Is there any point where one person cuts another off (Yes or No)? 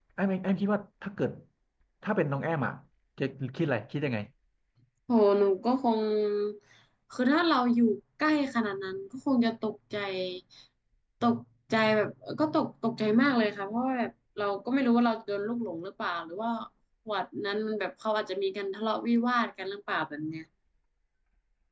No